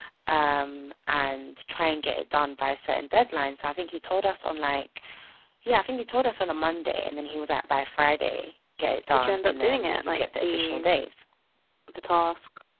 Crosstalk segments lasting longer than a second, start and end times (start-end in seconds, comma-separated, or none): 9.1-10.9